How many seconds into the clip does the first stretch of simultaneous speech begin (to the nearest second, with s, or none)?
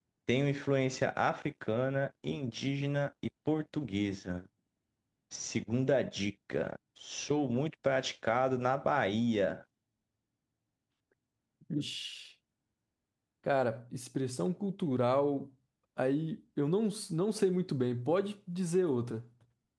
none